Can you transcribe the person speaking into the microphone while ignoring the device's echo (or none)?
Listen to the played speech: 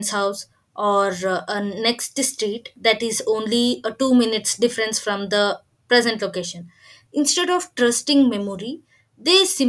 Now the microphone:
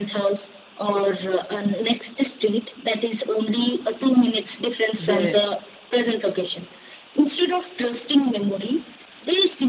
They